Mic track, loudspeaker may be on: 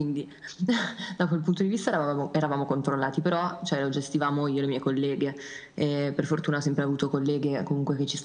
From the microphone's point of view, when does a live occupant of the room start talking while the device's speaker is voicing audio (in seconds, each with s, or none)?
none